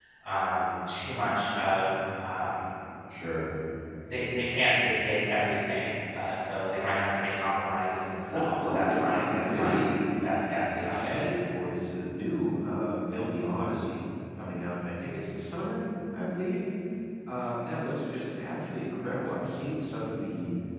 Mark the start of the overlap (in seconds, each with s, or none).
8.3 s